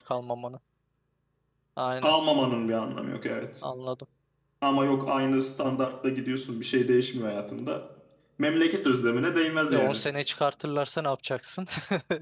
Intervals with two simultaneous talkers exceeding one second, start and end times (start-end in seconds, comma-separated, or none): none